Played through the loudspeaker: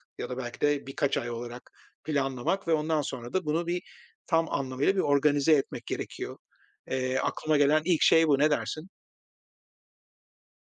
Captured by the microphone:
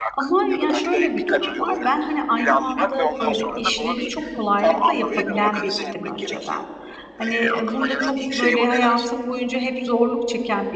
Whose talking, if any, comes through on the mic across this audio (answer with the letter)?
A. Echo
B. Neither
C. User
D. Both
D